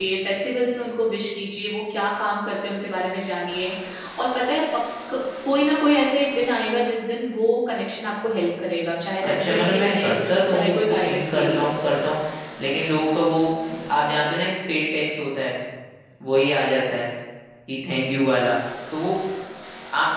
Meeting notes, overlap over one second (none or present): present